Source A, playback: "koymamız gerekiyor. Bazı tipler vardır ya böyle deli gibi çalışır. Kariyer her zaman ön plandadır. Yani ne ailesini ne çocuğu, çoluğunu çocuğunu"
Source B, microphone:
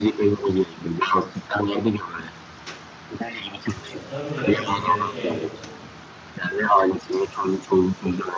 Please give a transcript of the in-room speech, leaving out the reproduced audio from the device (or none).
Ya tabii canım e, şey